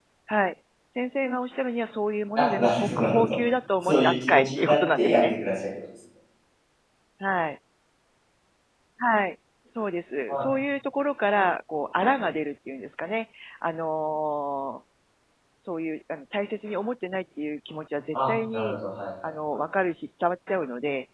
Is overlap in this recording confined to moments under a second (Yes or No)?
No